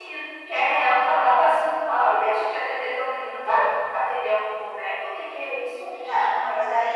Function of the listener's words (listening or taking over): taking over